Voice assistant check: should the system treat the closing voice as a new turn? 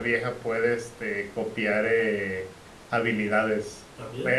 No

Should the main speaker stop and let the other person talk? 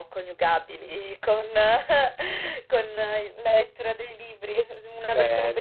No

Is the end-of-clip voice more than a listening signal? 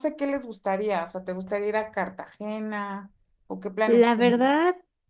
Yes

